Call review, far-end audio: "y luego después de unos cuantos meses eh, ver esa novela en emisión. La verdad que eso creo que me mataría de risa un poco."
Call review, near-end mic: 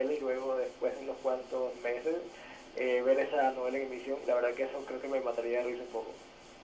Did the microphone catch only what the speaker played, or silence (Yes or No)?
Yes